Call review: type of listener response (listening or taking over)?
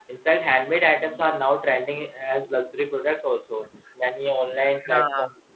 listening